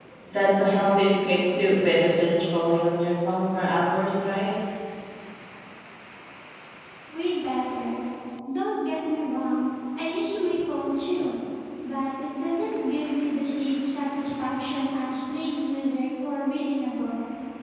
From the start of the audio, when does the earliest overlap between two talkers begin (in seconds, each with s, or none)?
none